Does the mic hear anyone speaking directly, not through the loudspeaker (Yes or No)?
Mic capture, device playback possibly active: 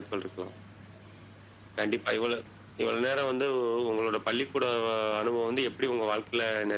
No